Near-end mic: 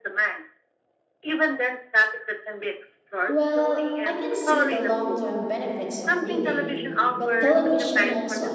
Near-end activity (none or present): present